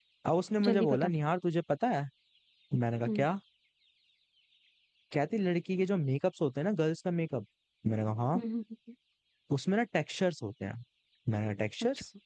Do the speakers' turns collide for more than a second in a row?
No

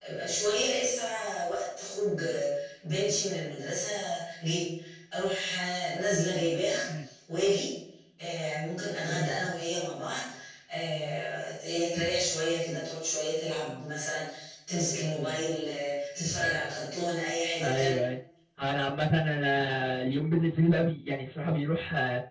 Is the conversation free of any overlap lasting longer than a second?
Yes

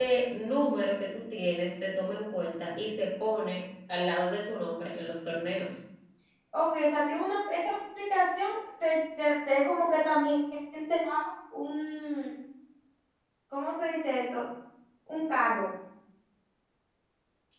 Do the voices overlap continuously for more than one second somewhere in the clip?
No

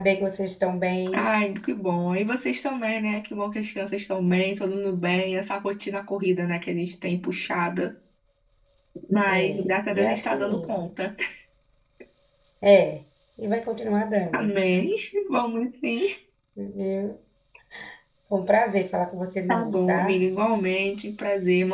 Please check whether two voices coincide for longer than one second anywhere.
Yes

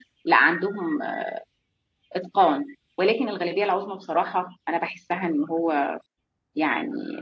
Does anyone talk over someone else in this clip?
No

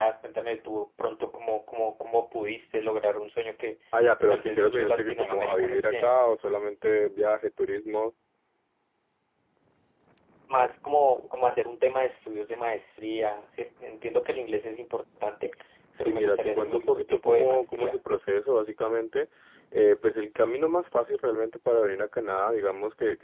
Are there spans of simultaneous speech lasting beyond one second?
Yes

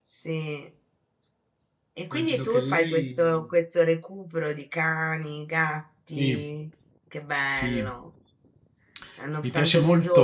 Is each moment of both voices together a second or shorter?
No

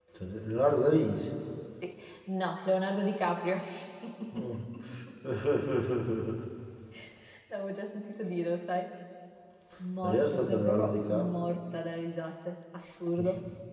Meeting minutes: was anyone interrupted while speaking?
Yes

